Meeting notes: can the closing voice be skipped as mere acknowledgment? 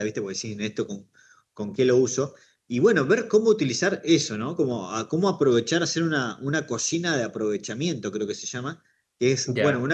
Yes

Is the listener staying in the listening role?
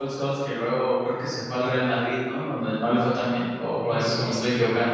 No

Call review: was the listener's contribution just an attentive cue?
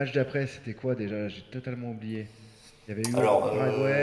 No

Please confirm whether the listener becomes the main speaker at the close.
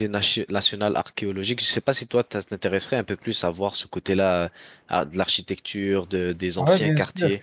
Yes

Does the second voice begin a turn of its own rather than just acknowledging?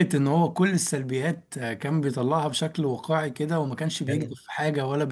No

